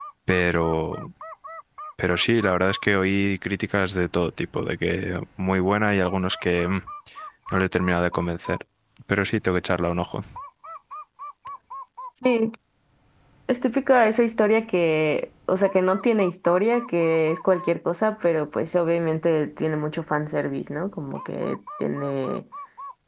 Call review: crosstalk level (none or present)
none